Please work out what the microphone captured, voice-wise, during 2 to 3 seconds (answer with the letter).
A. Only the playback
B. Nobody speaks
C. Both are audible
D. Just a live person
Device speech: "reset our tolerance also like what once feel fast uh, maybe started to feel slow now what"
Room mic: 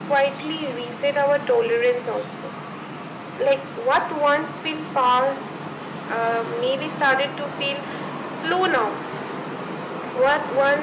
A